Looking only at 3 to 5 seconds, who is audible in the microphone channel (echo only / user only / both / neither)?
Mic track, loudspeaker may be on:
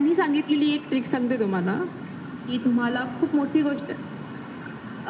echo only